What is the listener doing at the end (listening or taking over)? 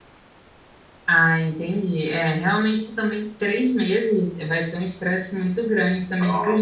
listening